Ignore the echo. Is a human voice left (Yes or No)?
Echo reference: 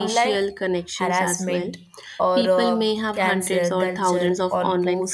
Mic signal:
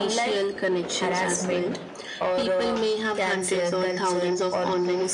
No